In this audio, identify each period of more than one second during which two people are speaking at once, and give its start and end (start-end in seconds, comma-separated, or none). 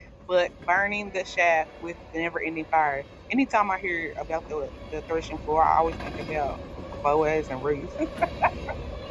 none